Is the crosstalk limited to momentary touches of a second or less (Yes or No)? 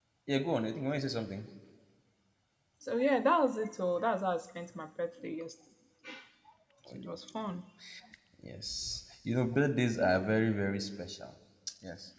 Yes